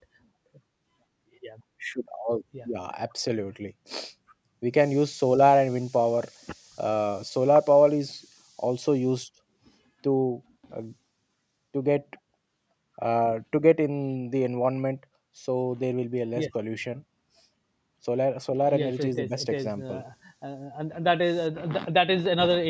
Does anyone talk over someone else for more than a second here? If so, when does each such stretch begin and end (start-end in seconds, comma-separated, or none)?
18.7-20.0